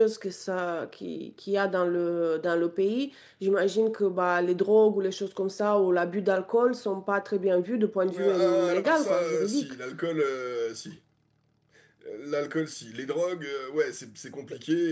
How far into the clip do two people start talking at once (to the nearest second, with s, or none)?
8 s